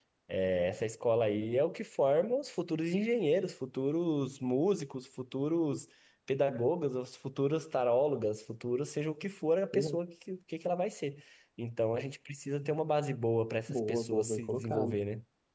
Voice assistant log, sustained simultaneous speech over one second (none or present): present